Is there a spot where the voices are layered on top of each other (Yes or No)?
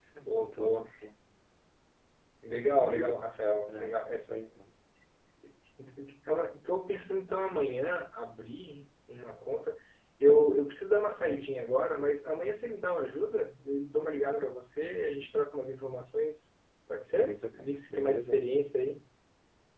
Yes